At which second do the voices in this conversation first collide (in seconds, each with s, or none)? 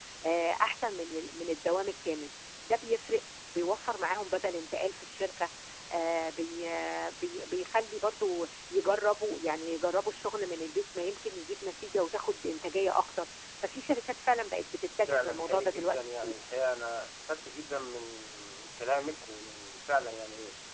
15.1 s